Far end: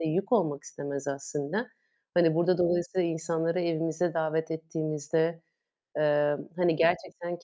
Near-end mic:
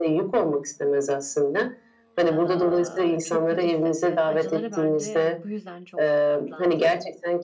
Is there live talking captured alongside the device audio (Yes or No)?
Yes